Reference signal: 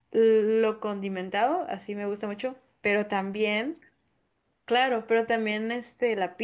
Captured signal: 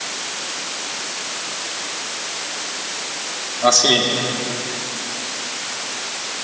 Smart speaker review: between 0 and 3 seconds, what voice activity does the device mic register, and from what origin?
neither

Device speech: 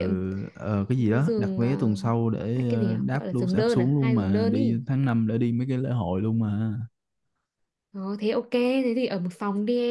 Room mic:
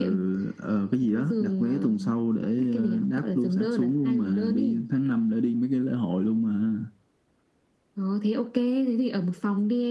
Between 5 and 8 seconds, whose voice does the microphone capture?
echo only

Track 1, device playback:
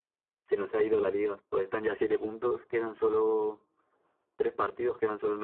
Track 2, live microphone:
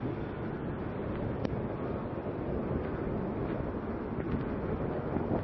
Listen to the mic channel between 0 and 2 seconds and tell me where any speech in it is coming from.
neither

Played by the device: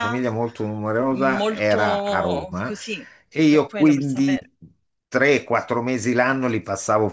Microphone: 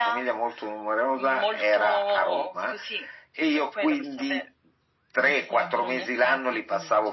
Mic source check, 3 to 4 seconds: echo only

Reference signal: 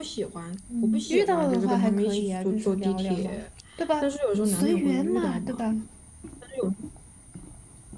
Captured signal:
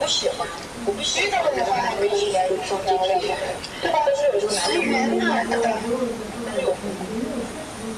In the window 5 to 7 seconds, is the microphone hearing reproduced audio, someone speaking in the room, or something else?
both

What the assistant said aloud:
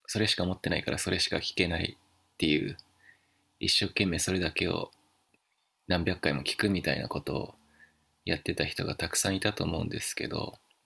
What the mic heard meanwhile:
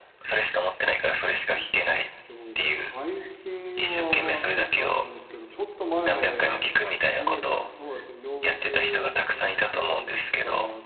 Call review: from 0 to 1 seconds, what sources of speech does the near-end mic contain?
echo only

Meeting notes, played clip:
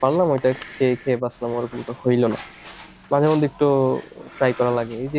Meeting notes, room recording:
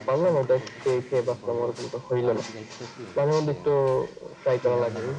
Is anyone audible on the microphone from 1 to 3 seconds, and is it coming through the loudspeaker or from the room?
both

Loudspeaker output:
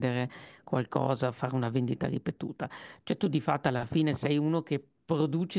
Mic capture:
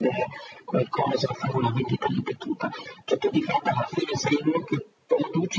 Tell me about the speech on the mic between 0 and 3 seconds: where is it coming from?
echo only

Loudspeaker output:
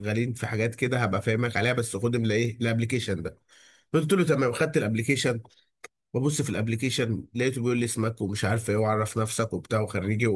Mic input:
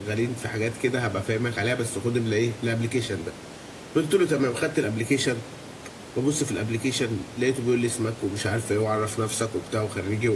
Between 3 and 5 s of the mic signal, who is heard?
echo only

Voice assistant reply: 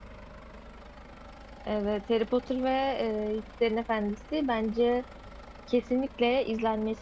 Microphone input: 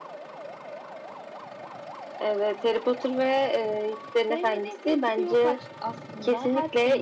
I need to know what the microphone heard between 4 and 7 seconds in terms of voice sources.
both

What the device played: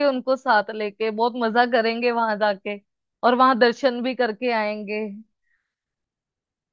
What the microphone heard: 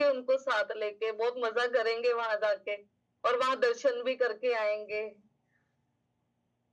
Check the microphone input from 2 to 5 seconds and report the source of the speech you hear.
echo only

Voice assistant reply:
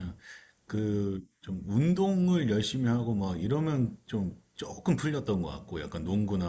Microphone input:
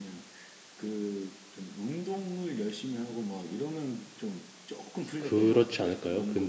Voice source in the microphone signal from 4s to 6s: both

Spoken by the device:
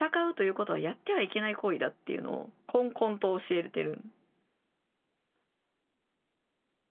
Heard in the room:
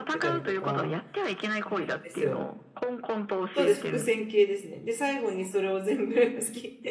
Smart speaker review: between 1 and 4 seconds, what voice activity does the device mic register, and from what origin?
both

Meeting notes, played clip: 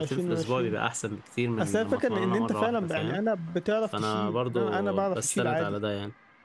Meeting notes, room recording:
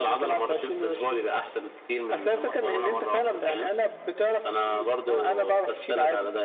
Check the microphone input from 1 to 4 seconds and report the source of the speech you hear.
echo only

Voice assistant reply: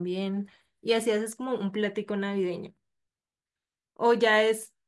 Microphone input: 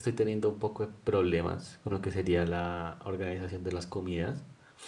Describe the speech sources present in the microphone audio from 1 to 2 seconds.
user only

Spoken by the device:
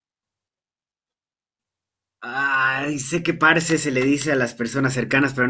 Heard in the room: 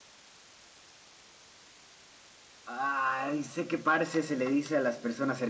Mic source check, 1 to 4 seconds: echo only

